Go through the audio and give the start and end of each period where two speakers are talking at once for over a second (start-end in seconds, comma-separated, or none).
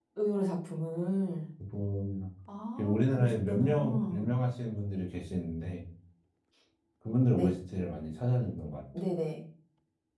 2.8-4.3